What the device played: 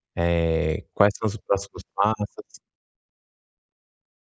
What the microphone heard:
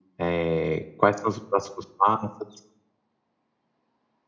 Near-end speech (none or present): none